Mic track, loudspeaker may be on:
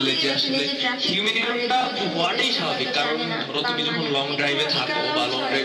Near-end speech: none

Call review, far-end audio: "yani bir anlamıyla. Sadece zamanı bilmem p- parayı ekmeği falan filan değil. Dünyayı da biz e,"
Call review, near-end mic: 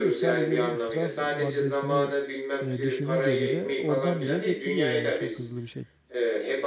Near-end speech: present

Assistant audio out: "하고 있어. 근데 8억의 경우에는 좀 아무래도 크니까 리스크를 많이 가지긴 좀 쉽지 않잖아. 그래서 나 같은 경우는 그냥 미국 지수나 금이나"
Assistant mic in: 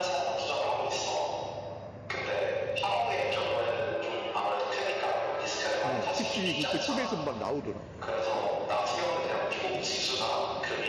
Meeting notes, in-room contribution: present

